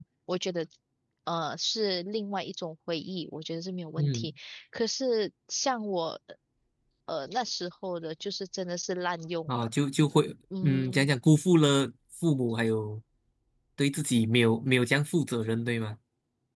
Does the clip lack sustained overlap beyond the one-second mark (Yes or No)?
Yes